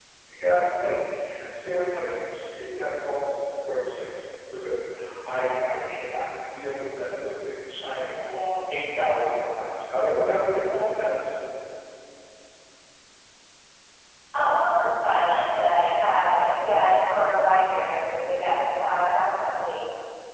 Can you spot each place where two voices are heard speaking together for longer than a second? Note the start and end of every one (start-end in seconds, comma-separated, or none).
none